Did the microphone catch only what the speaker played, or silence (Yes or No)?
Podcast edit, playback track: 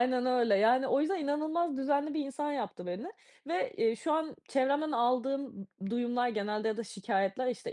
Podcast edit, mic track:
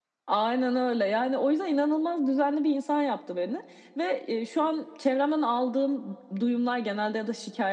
Yes